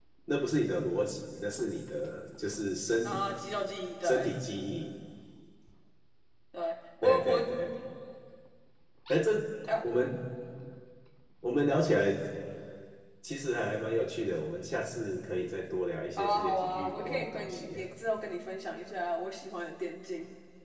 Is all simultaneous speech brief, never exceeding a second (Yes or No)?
No